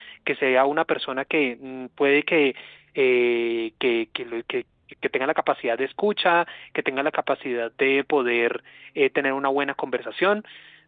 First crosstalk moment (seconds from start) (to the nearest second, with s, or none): none